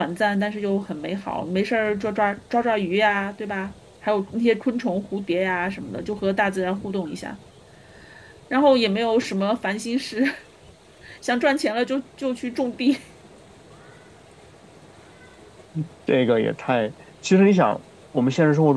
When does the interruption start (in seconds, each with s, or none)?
none